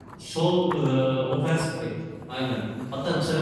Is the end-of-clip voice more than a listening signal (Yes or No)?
No